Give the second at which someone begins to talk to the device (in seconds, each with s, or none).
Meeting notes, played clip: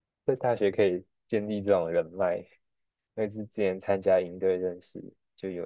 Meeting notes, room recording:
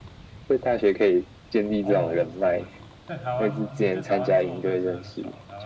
1.8 s